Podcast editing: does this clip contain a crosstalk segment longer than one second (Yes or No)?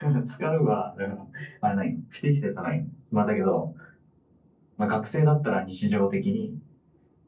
No